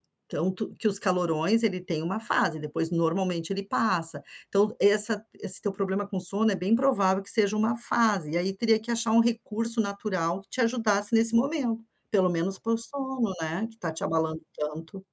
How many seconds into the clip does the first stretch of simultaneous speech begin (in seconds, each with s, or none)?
none